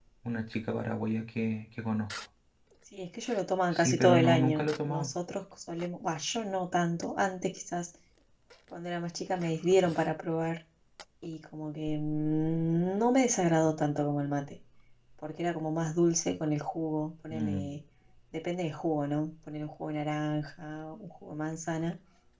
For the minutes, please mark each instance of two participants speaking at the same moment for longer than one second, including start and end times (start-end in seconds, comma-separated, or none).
3.7-5.1